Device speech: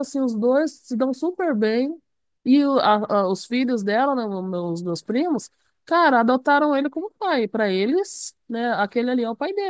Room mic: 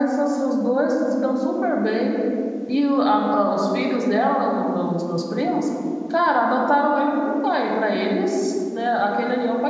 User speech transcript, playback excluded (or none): none